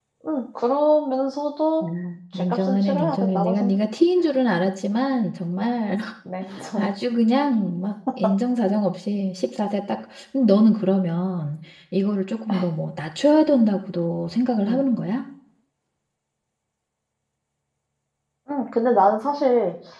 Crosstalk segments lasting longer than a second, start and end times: 2.3-3.8

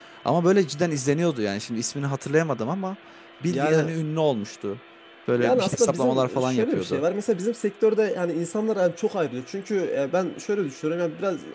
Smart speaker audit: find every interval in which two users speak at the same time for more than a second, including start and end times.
5.4-7.0

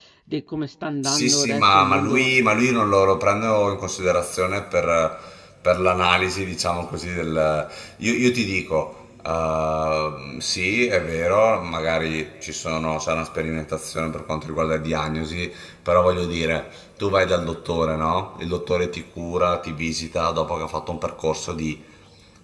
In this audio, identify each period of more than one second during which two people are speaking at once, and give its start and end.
1.0-2.3

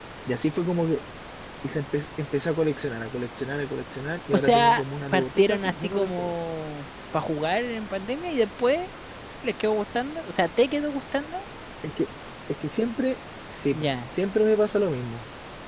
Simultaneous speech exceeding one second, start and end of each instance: 4.3-6.3

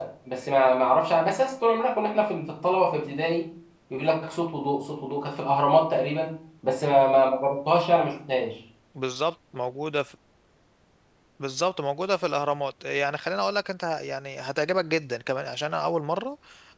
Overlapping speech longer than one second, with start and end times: none

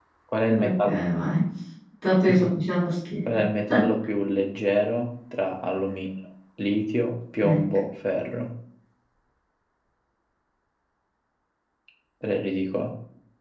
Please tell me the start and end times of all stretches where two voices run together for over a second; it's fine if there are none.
none

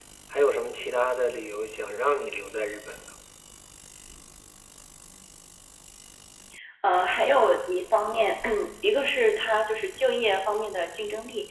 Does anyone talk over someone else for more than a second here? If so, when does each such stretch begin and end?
none

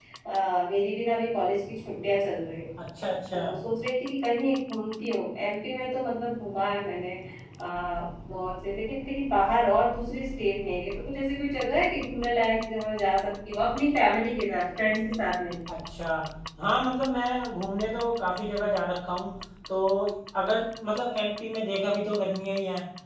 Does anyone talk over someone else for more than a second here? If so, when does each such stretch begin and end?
none

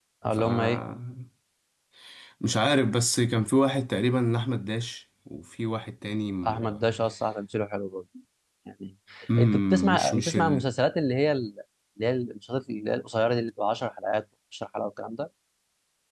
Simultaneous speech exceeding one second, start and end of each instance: 9.4-10.7

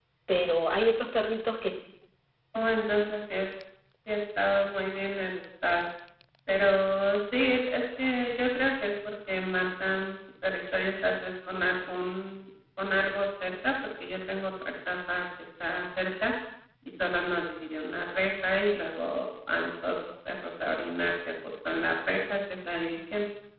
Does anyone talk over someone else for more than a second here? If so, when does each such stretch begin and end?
none

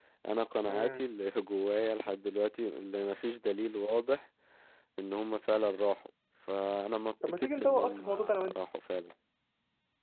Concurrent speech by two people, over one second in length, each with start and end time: 7.3-8.6

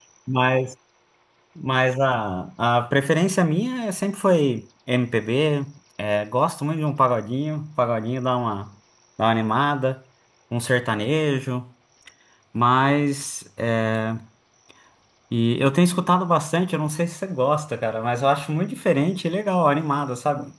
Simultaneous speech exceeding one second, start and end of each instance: none

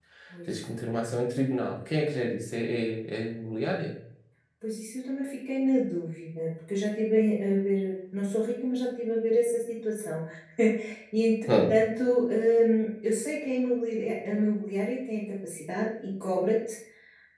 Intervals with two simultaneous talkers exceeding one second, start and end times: none

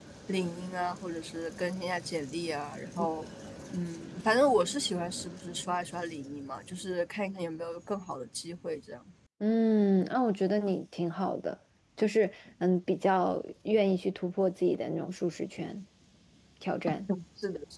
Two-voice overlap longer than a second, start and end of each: none

